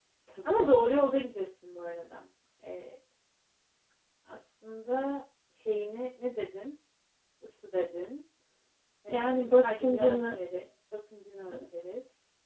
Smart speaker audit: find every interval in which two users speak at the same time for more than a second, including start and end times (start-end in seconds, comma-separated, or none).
9.1-10.4